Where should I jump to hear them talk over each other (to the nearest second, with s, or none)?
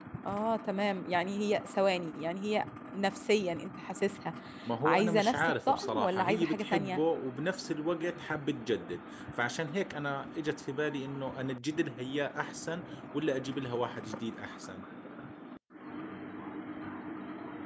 5 s